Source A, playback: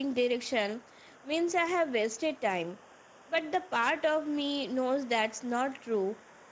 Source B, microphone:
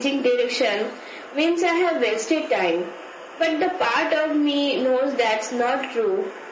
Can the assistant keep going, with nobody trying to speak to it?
Yes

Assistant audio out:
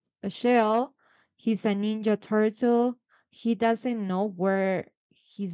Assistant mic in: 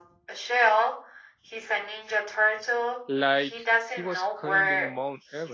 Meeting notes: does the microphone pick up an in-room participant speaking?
Yes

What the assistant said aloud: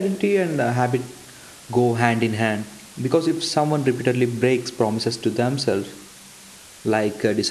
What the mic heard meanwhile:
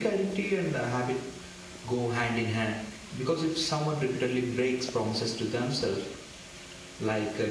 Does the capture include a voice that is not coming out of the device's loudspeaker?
No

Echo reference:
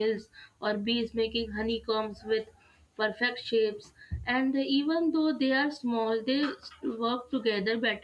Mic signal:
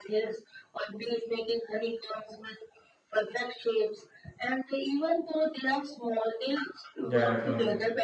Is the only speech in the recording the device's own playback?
No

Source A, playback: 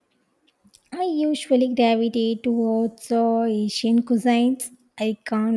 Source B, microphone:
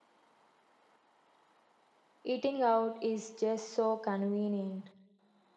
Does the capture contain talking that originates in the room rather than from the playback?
Yes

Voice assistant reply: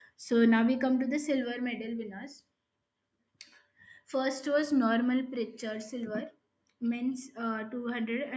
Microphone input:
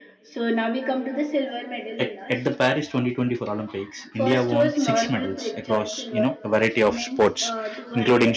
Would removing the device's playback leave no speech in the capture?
No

